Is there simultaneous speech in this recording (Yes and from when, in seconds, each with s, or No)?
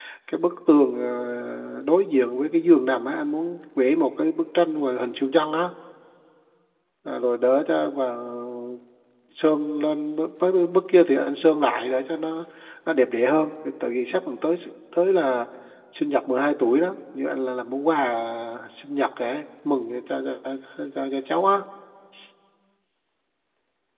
No